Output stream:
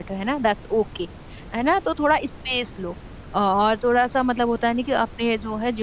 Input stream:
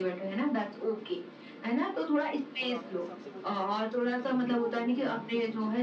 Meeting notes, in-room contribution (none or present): present